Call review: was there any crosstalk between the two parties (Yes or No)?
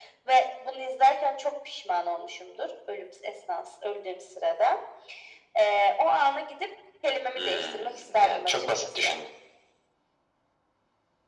Yes